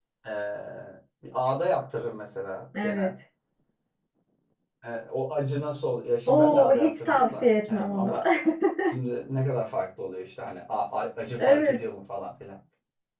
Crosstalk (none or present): present